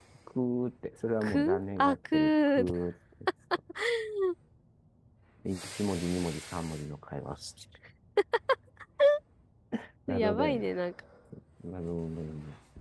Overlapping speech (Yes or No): Yes